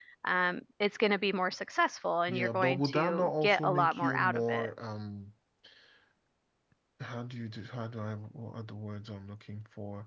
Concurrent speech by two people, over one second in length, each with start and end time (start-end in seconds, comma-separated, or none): 2.3-4.7